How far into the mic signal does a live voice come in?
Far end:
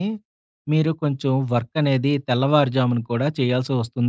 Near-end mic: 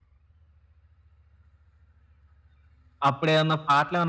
3.1 s

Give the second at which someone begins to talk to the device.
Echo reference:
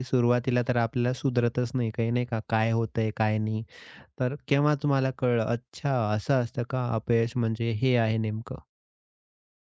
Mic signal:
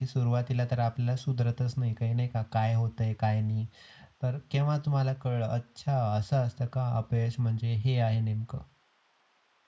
none

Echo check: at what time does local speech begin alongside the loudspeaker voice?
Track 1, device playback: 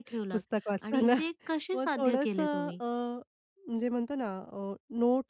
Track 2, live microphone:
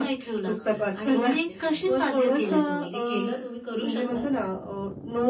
0.6 s

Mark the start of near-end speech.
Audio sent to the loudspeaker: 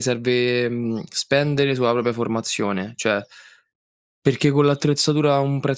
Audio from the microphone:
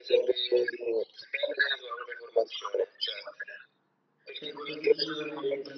4.3 s

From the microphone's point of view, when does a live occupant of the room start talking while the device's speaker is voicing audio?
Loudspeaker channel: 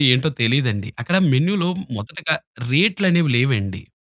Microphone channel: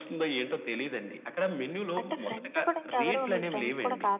2.0 s

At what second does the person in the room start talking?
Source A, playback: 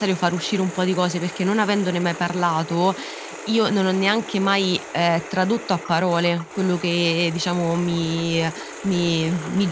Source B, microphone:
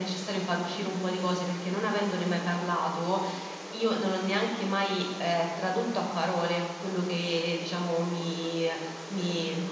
none

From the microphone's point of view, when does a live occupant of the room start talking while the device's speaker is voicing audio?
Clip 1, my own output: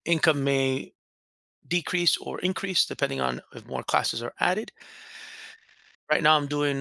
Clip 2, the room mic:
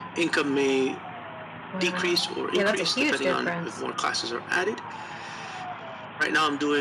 1.7 s

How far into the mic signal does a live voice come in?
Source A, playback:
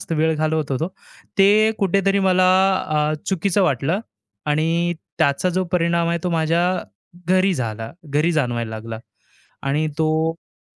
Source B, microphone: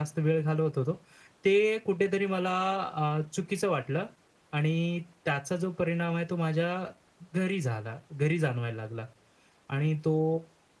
none

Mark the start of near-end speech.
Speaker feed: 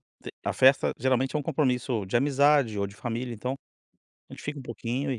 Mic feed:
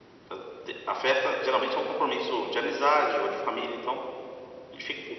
none

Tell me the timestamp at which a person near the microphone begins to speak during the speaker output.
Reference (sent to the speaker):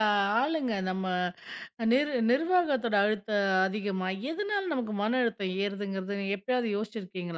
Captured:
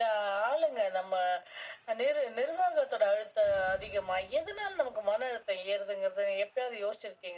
none

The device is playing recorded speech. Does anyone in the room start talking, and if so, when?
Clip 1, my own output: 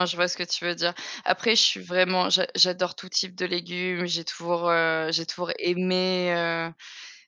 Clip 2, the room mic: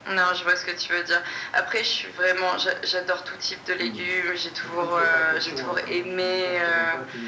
3.8 s

